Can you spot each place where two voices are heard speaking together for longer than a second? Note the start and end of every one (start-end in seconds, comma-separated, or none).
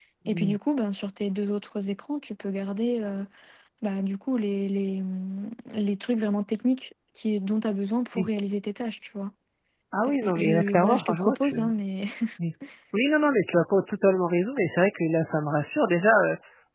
10.1-11.6